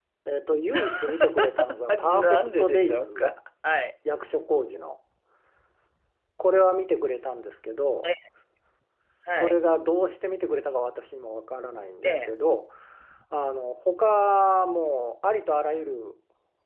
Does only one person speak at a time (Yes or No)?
No